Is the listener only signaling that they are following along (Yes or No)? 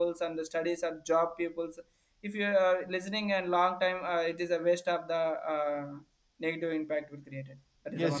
No